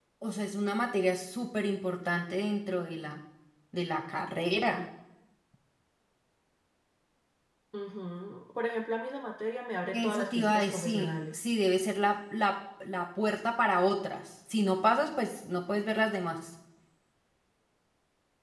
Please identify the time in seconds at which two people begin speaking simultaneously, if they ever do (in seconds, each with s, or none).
9.9 s